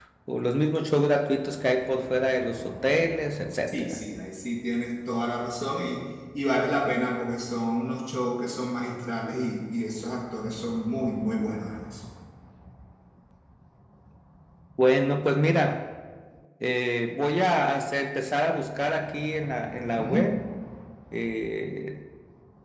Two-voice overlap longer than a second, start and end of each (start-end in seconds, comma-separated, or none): none